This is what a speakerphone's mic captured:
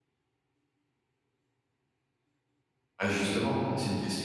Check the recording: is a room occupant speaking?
Yes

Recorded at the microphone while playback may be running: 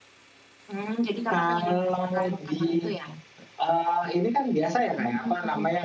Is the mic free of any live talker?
Yes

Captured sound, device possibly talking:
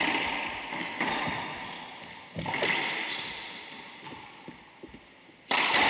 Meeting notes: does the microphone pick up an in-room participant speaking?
No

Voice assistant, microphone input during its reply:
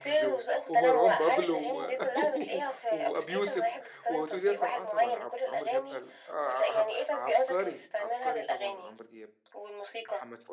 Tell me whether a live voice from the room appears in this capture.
Yes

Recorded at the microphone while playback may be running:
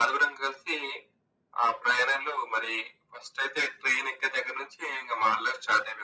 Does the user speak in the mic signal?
No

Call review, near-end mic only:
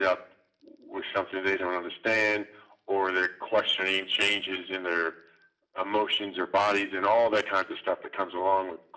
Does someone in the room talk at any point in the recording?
No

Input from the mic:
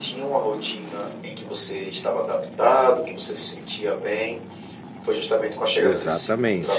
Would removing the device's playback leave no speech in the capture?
No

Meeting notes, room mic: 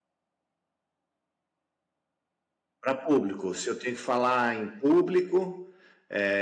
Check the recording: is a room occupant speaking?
Yes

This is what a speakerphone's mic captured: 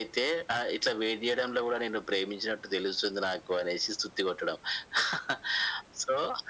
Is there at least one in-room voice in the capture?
No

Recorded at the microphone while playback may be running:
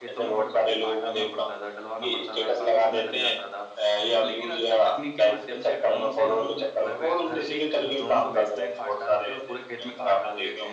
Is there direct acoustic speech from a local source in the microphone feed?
Yes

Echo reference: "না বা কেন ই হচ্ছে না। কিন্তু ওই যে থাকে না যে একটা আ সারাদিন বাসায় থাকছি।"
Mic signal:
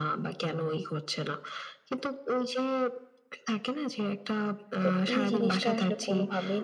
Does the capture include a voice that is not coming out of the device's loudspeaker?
Yes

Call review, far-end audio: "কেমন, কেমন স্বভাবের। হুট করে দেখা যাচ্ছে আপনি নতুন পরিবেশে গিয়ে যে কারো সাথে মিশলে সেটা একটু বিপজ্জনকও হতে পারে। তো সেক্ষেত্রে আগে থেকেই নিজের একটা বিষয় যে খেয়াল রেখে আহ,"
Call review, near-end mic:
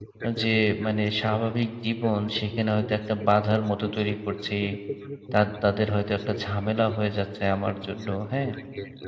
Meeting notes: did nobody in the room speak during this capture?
No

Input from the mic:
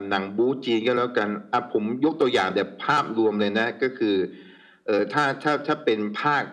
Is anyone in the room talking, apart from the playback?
No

